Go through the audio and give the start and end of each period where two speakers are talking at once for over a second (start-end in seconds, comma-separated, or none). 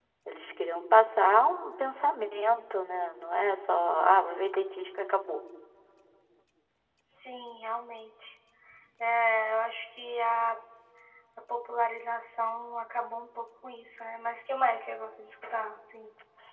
none